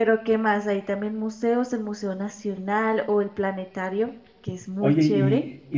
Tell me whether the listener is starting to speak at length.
Yes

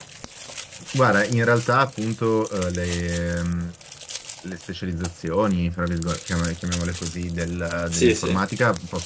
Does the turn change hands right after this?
No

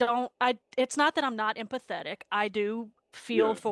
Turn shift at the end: No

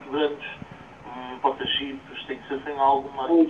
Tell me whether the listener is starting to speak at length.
Yes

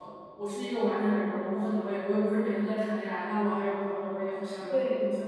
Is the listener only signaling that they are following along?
No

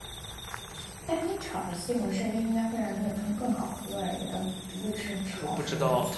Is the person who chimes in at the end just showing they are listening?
No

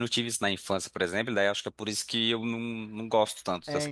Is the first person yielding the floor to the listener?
Yes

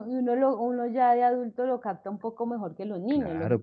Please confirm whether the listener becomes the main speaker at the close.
Yes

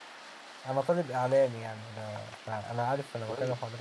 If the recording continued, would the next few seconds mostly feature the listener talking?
Yes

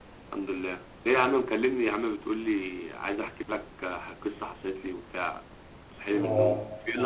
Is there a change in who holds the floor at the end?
Yes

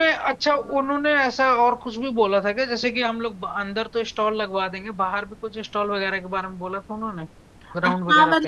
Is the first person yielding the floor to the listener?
Yes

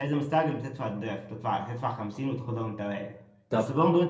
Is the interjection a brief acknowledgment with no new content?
Yes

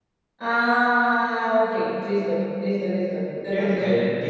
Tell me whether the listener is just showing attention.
No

